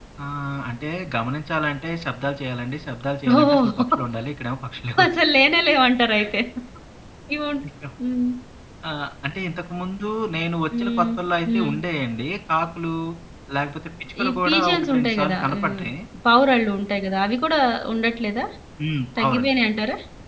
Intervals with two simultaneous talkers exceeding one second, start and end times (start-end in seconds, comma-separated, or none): 14.2-15.8